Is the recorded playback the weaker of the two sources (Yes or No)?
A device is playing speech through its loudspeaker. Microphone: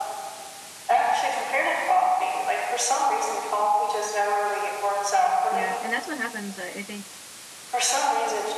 No